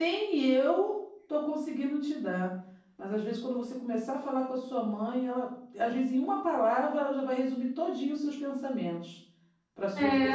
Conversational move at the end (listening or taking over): taking over